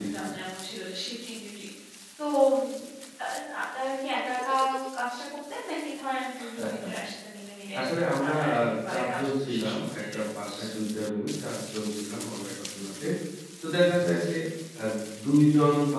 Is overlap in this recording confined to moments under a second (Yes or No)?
No